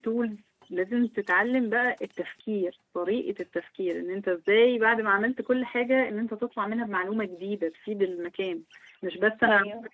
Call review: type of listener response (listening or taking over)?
listening